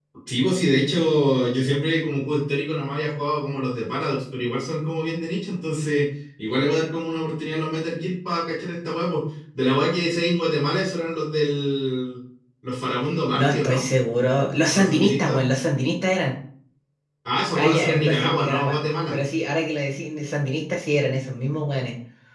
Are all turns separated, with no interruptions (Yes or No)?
No